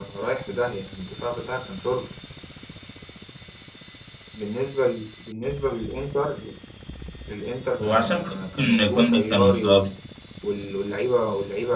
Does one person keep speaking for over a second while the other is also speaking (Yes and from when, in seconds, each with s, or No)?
Yes, from 7.8 s